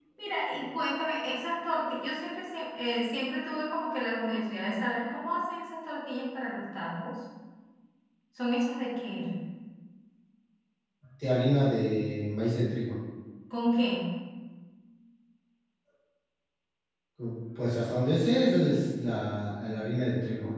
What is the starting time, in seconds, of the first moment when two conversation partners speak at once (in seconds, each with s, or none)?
none